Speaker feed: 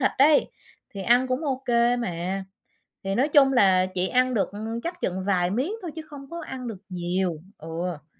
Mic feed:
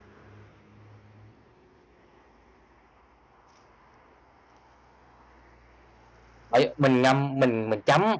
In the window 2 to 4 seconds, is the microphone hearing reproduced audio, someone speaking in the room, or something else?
neither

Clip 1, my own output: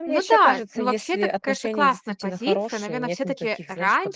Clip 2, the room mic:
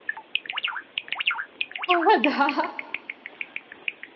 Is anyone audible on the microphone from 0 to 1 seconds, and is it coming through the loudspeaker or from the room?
neither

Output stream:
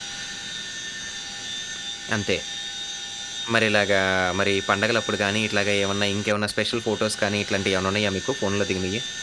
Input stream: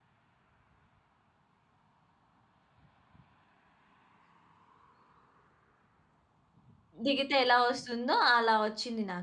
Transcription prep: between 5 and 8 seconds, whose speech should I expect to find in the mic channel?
user only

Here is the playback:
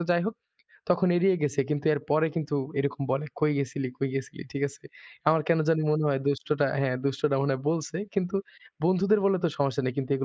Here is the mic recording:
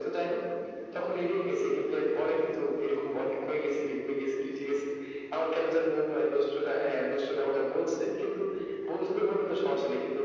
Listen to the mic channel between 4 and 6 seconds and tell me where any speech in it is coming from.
echo only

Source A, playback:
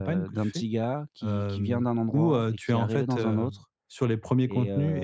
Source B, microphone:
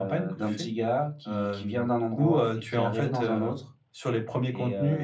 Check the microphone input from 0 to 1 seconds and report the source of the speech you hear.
echo only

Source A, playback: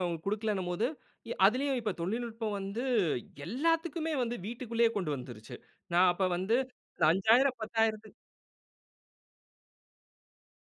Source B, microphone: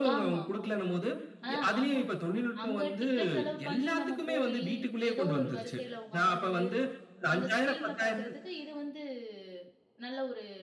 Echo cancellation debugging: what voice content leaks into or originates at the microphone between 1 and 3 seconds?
both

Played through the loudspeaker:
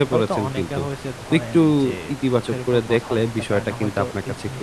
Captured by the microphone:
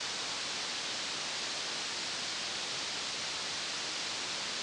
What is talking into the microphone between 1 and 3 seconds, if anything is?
neither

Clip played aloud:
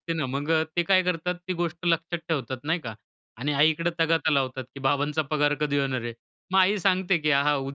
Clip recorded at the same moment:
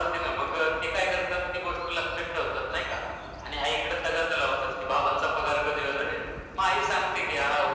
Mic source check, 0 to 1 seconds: echo only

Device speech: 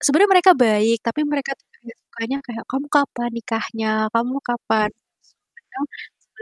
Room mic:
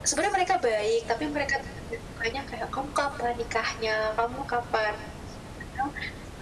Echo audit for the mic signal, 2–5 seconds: echo only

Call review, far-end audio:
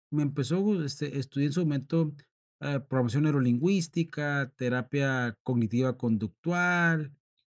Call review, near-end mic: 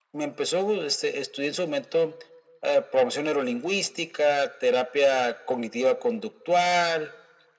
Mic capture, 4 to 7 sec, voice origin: echo only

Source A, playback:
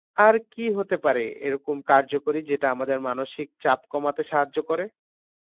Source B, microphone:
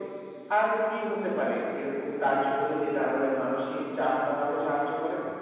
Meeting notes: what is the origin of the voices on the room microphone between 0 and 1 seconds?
echo only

